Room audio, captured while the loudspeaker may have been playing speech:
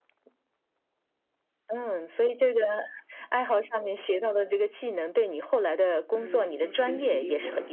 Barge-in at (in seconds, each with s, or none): 6.1 s